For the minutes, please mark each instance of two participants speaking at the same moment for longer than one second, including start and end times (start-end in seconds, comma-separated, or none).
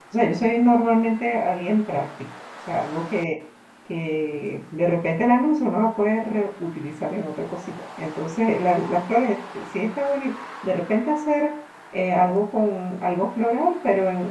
none